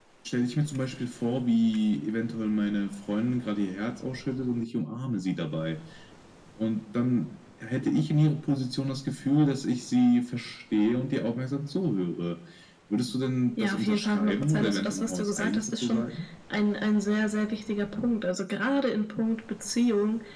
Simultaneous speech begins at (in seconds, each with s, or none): 13.6 s